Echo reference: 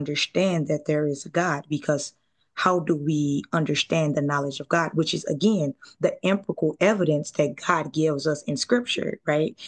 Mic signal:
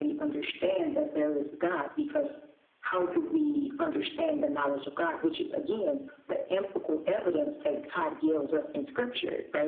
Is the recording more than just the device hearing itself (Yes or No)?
No